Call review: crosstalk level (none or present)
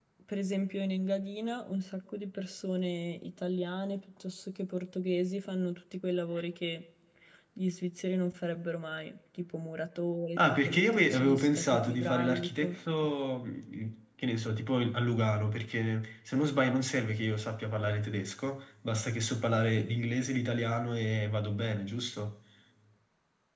present